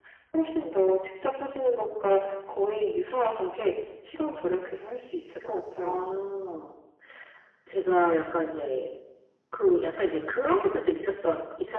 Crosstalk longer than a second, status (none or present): none